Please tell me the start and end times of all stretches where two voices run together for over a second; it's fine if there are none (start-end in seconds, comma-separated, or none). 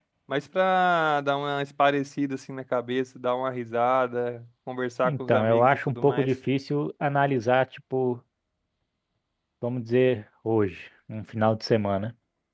5.0-6.3